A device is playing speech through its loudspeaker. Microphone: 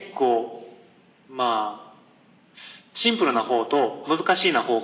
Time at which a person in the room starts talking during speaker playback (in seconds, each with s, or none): none